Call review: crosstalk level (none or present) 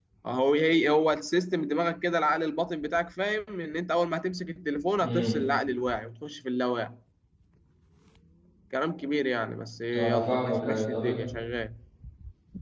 present